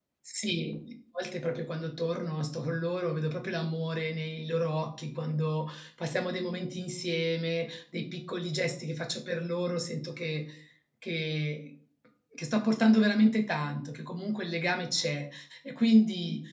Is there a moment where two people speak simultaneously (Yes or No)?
No